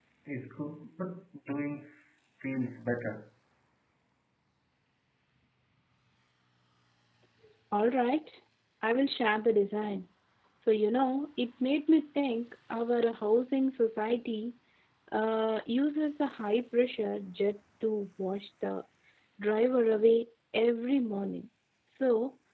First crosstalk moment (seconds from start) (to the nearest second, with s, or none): none